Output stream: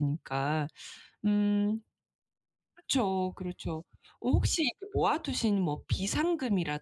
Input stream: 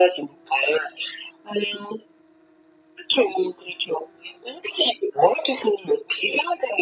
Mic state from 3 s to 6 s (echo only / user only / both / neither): echo only